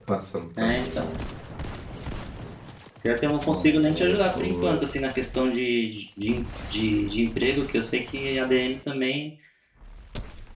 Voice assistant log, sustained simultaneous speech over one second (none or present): present